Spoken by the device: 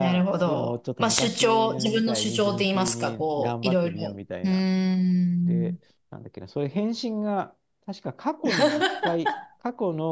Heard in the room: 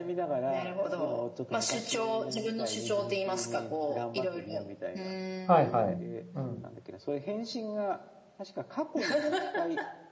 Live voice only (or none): はいはい。うん。